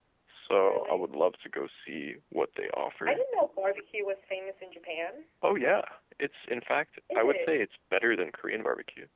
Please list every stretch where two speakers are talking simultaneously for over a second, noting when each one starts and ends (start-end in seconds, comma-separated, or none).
none